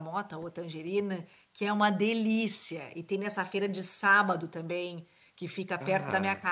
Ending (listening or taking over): listening